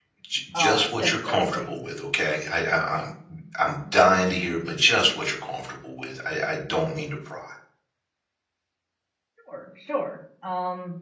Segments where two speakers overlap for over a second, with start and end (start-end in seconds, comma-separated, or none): 0.6-1.8